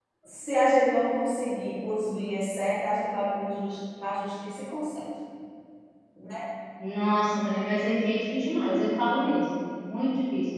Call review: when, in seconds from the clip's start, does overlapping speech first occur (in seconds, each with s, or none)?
none